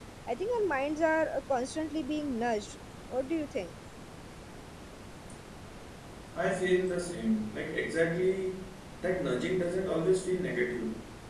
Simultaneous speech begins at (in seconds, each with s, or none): none